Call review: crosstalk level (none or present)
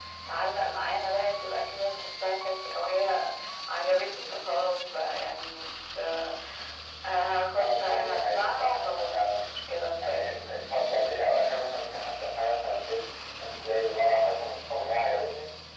present